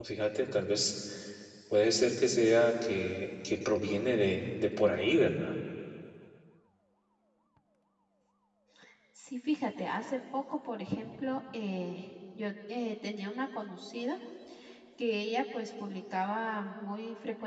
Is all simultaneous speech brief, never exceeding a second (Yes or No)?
Yes